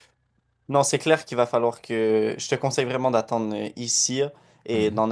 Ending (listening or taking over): listening